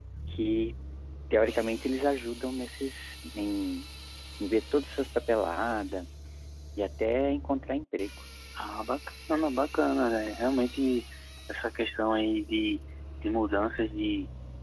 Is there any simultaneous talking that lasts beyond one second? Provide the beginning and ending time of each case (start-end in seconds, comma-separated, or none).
none